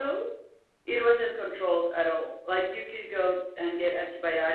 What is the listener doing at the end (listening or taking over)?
listening